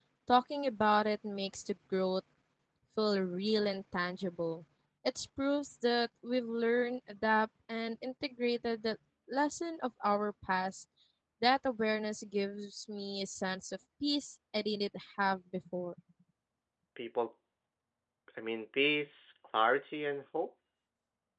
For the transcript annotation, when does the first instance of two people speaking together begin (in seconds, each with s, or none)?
none